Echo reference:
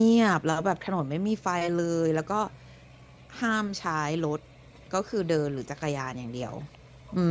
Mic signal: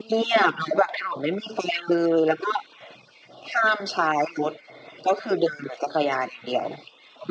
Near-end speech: none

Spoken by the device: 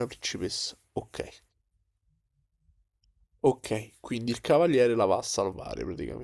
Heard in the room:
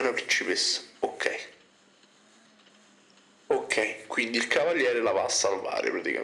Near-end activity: none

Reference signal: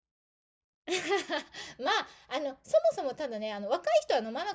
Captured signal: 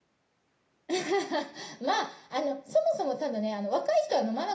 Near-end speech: none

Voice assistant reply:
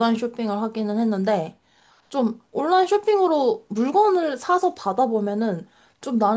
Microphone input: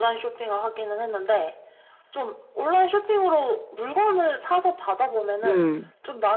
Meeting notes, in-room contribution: present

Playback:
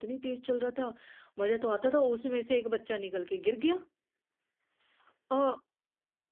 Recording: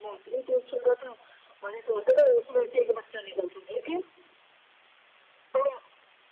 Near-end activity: none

